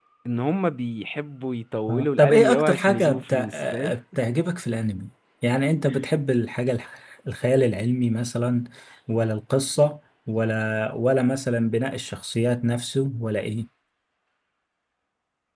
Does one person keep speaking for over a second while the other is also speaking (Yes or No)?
Yes